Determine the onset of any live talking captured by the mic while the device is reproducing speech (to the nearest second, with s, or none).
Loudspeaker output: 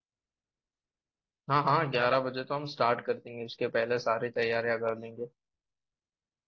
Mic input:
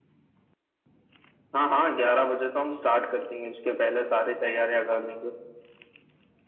none